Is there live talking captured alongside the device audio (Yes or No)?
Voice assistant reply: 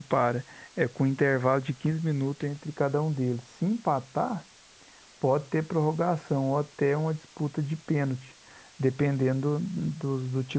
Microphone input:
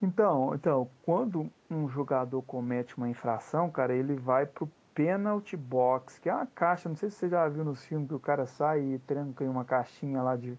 Yes